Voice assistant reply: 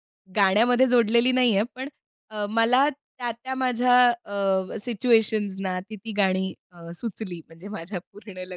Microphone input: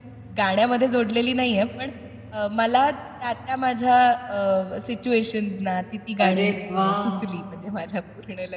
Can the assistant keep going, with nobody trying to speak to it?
No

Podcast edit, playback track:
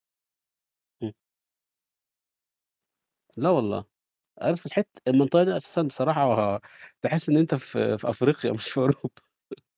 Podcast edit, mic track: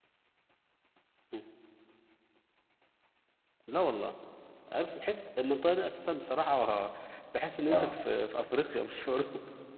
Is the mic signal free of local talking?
No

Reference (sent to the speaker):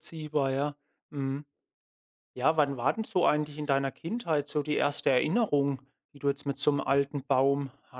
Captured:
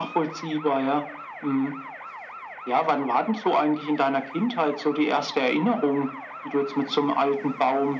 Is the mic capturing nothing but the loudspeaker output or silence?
Yes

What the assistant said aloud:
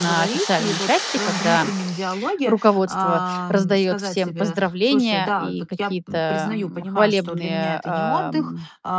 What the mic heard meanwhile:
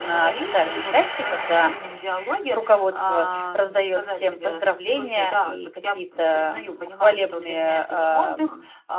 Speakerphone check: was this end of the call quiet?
Yes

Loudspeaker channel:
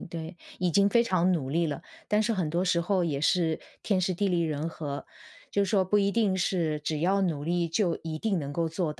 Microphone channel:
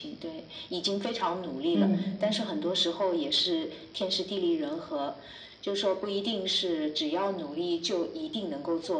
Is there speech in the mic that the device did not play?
Yes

